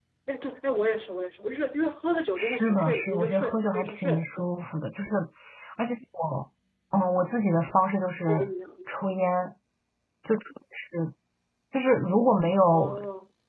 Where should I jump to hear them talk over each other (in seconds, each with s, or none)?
2.4 s